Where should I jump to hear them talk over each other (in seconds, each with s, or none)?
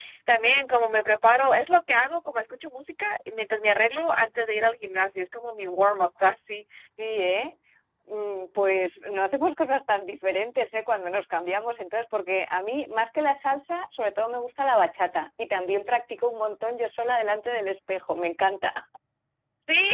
none